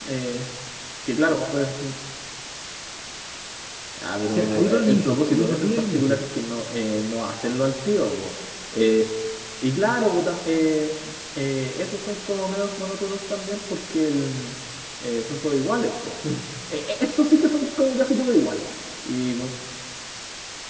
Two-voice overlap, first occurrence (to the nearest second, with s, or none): 4 s